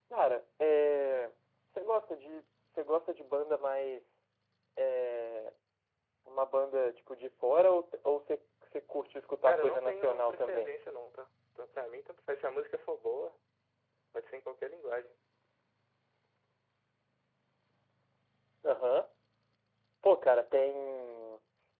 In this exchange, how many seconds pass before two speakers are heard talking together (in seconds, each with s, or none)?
9.5 s